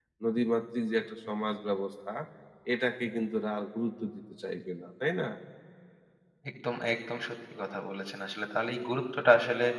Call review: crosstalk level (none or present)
none